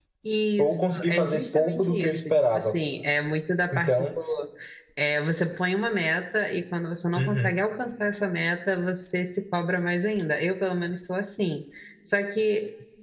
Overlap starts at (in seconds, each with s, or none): 0.6 s